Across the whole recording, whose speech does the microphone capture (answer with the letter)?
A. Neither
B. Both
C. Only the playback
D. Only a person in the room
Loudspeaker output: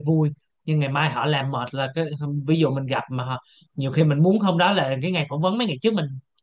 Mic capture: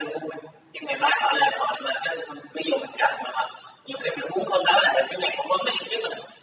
C